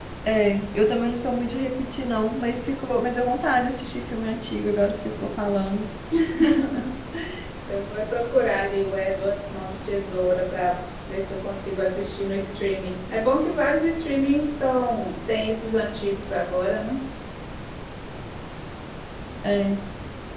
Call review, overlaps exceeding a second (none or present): none